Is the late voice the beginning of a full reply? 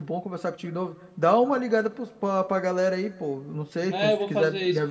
Yes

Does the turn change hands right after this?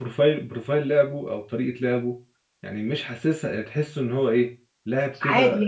No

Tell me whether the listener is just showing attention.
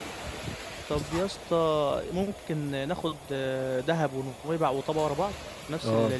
No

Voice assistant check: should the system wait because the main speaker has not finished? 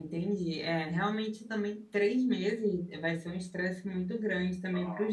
Yes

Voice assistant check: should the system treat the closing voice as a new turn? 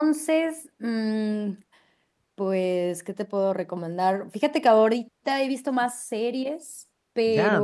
Yes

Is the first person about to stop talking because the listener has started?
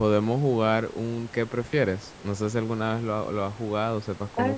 Yes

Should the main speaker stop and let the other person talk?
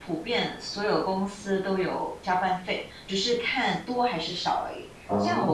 No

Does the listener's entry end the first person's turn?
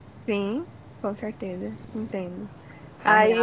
Yes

